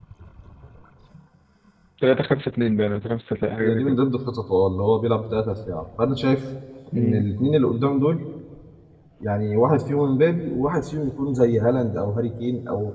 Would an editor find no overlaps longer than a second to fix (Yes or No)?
Yes